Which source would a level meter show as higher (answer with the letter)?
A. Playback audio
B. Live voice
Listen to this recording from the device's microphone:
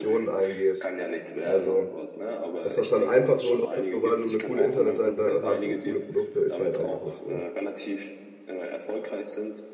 B